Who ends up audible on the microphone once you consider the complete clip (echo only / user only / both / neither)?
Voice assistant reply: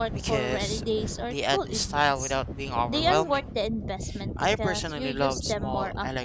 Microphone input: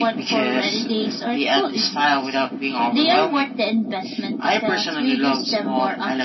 echo only